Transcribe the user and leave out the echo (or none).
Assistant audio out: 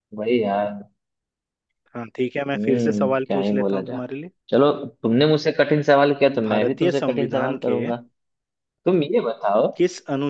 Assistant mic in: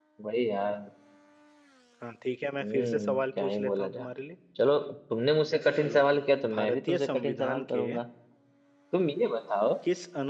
अच्छा चलो